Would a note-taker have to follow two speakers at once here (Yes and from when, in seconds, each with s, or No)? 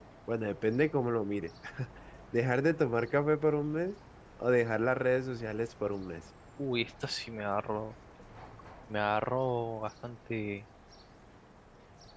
No